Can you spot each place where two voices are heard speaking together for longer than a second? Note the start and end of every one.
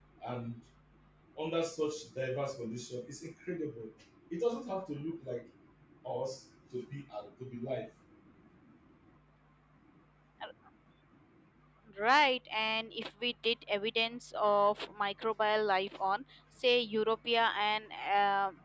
none

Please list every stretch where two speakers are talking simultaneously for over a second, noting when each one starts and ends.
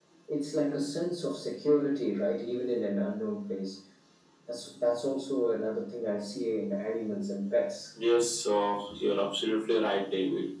none

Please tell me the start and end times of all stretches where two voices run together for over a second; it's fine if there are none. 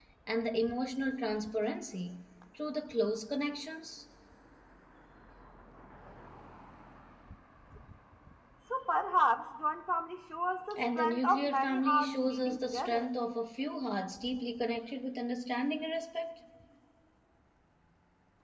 10.8-13.1

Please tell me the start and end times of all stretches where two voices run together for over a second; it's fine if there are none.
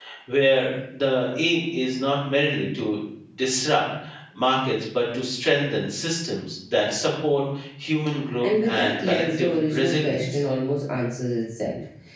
8.4-10.2

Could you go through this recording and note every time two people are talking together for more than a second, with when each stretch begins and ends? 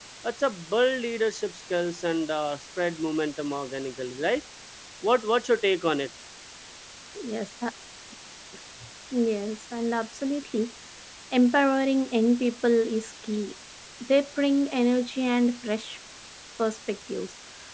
none

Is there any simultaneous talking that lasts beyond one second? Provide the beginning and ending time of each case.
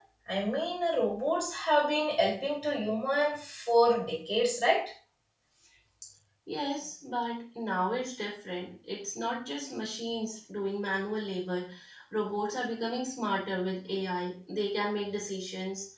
none

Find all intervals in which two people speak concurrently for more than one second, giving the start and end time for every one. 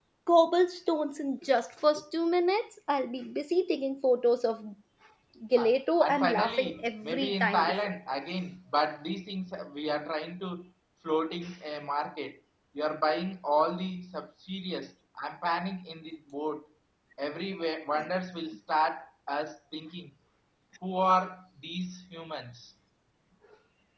5.6-7.7

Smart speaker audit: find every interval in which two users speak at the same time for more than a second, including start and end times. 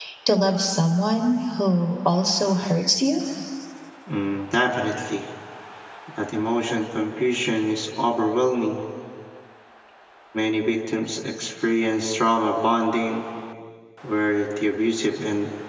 none

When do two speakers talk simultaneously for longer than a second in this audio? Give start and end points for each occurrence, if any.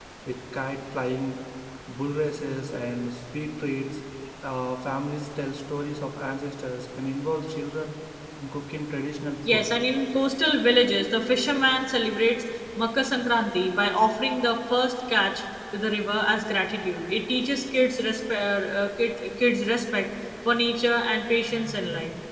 none

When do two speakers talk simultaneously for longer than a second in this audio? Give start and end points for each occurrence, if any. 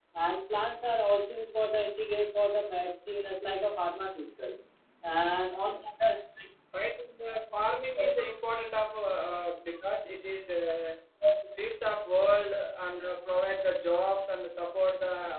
none

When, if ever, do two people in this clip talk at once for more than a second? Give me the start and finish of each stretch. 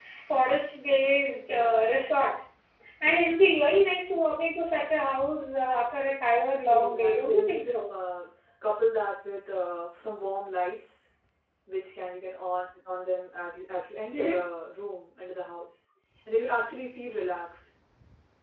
6.7-7.9

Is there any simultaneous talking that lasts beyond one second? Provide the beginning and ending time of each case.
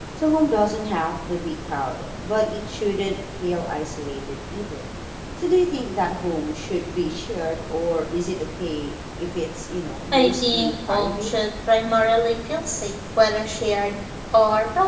10.1-11.3

